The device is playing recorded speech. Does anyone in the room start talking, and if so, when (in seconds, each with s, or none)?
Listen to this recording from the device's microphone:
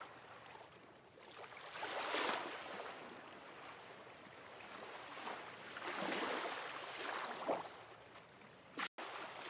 none